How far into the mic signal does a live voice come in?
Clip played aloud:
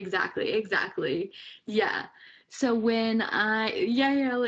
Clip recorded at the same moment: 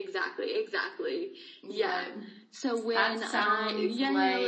1.6 s

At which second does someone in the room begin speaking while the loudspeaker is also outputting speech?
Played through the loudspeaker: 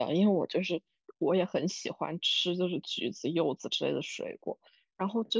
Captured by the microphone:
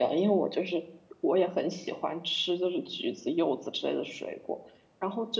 none

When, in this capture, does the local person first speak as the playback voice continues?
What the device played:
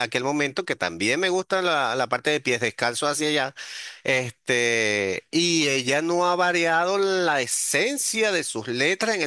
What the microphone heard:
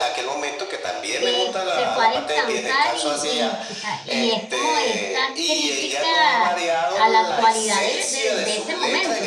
1.2 s

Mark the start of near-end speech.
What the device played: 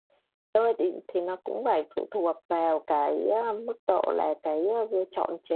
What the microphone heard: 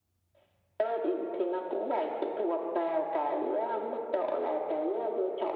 none

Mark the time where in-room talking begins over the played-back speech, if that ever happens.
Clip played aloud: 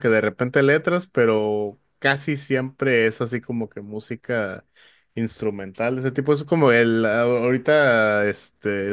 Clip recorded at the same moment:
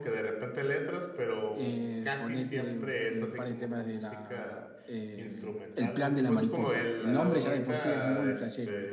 1.5 s

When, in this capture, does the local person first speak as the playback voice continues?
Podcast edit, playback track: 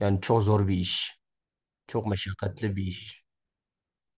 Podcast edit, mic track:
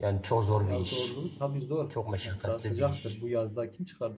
0.6 s

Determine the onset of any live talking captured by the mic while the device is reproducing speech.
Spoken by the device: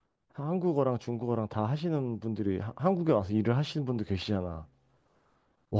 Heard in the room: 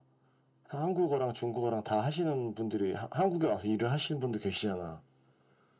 none

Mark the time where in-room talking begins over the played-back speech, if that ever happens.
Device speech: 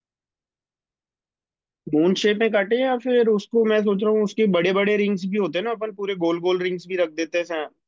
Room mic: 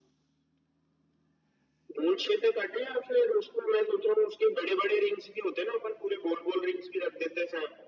none

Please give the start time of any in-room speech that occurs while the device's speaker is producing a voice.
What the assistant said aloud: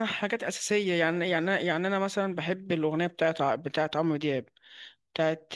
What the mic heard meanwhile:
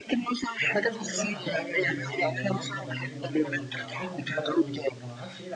0.6 s

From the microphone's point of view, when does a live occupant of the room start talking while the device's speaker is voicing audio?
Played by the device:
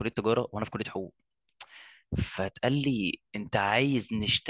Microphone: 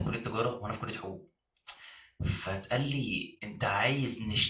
none

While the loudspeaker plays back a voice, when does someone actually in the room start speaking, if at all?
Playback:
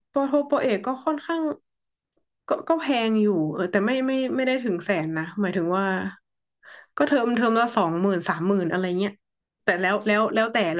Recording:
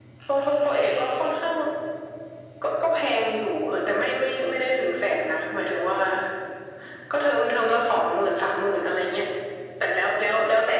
none

